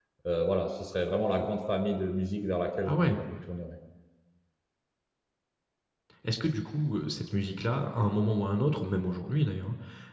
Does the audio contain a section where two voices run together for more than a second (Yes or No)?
No